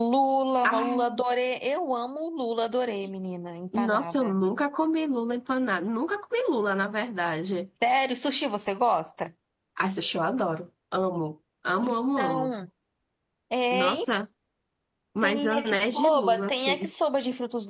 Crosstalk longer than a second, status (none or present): present